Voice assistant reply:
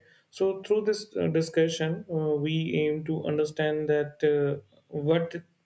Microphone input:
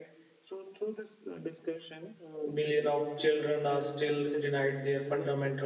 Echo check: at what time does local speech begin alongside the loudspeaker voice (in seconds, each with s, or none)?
2.4 s